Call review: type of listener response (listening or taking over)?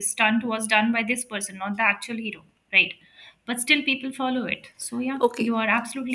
taking over